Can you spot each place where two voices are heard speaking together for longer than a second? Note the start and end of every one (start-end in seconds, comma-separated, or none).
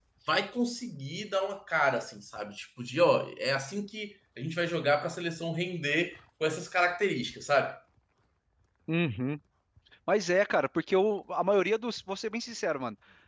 none